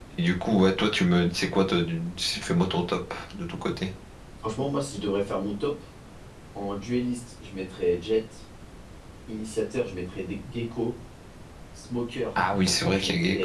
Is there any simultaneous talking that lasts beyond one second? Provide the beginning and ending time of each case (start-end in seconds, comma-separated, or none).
none